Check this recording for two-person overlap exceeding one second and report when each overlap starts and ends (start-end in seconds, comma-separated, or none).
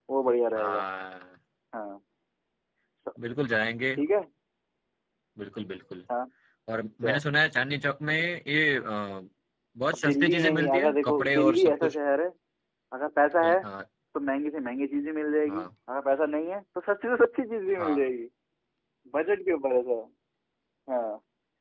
10.0-11.9